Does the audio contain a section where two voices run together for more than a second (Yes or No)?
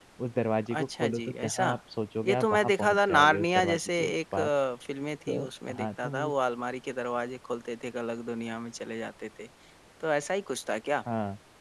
Yes